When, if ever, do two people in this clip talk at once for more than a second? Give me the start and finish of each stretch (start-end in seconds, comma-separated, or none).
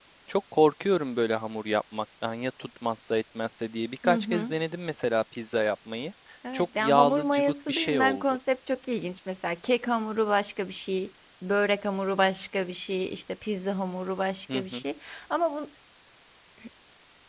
6.5-8.2